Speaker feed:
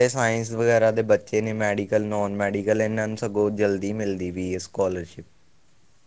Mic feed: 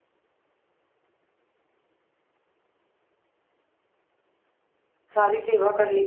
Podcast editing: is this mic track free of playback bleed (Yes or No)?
Yes